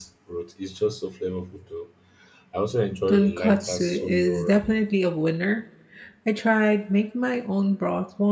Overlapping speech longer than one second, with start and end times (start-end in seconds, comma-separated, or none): 3.1-4.8